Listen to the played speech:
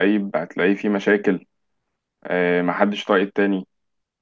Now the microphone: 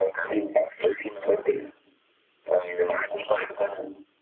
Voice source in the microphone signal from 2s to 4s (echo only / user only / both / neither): echo only